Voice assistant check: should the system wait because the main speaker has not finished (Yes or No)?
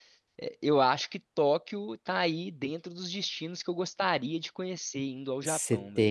No